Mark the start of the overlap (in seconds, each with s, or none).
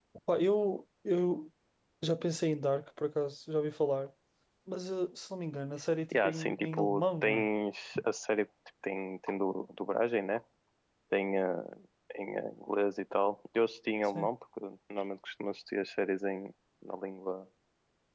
6.1 s